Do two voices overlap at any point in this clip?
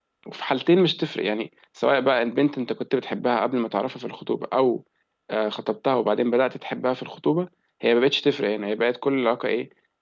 No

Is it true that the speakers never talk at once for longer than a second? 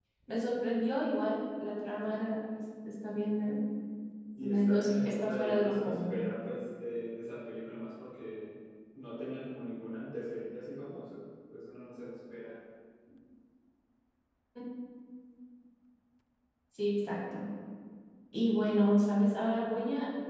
No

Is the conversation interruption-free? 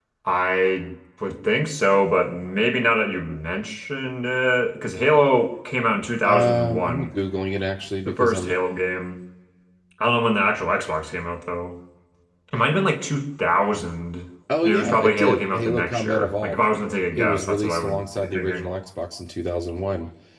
No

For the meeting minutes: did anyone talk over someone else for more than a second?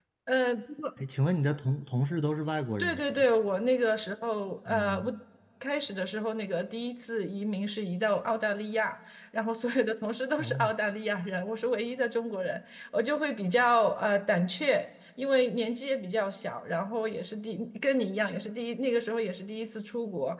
No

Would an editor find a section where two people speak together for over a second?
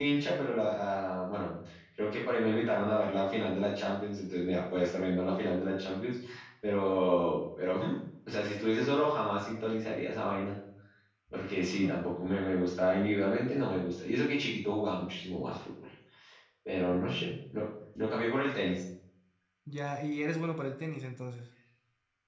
No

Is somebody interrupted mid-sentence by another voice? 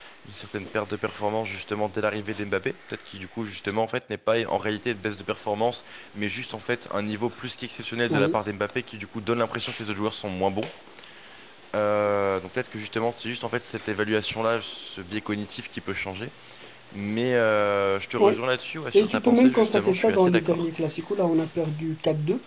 Yes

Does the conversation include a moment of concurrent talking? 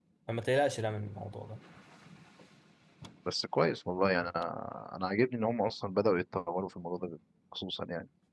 No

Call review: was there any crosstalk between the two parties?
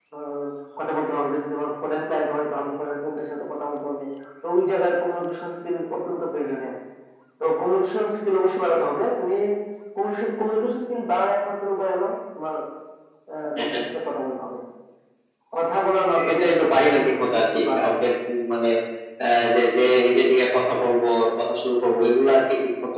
Yes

